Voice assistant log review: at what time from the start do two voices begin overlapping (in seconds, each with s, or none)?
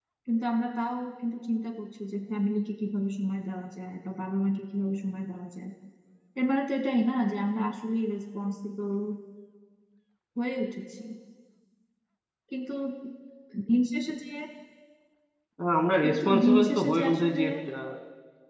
16.0 s